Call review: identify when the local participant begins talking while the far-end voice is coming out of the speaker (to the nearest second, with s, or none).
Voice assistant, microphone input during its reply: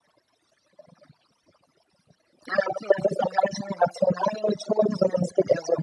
none